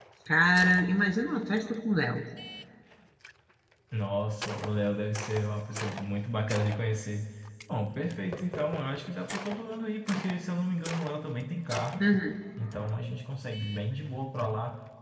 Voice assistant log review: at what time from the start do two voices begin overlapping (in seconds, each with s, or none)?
none